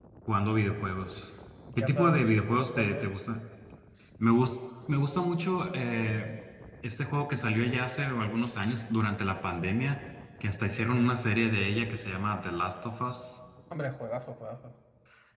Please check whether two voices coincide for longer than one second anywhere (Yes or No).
Yes